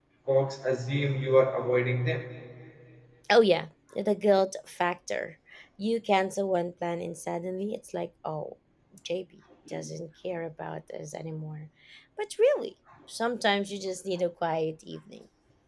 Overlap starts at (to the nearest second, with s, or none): none